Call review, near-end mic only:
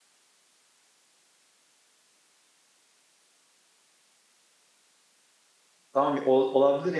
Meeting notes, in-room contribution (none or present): present